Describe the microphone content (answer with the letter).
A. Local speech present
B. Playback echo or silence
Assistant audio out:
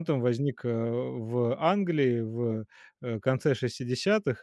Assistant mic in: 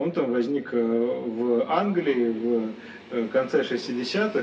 B